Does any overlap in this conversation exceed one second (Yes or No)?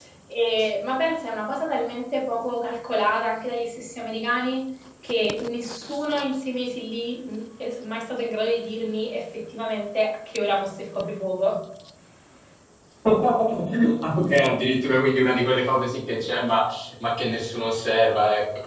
No